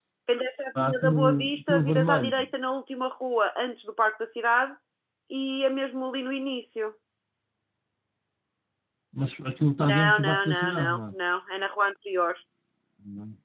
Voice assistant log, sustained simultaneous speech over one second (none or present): present